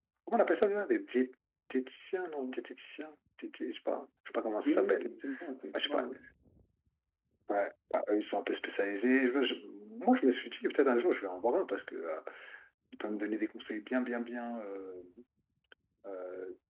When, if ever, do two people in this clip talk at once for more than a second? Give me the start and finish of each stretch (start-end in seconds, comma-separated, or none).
none